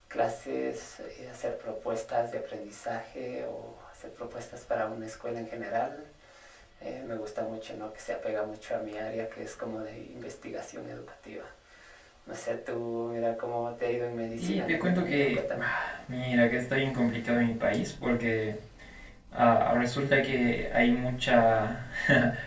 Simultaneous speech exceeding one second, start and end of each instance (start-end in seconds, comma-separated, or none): 14.4-15.7